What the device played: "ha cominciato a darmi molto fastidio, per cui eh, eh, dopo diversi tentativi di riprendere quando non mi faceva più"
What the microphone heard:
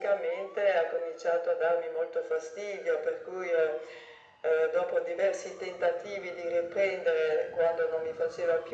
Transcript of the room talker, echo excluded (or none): none